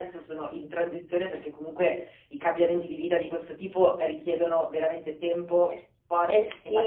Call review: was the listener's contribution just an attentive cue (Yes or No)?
No